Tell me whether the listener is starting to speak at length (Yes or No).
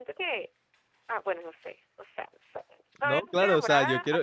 Yes